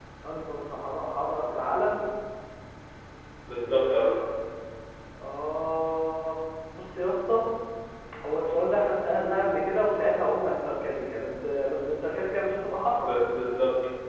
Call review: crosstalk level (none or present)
none